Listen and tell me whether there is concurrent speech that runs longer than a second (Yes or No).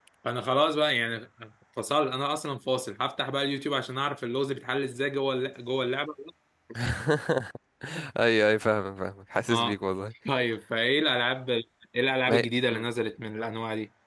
No